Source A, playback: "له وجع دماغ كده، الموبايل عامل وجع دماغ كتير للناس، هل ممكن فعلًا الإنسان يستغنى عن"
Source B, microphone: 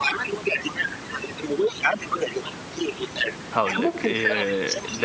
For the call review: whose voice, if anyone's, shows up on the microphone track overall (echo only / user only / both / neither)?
both